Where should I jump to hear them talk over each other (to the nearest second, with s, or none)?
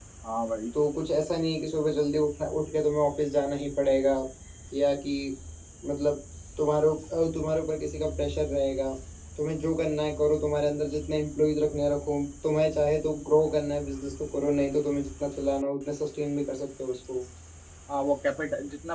none